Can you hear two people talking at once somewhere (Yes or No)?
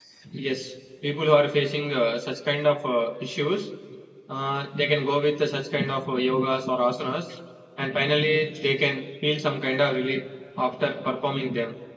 No